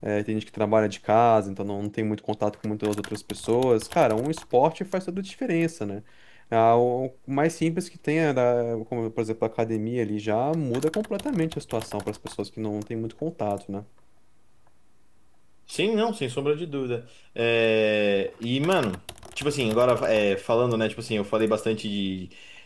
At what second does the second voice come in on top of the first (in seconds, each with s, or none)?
none